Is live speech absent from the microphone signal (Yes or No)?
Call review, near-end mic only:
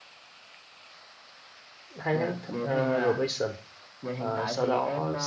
No